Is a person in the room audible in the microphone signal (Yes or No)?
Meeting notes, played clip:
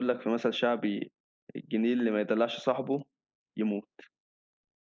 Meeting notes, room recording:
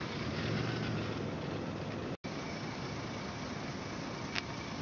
No